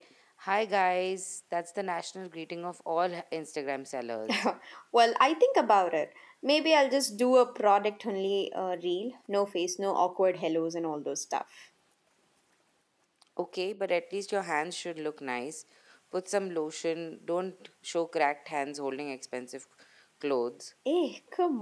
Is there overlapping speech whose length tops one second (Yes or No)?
No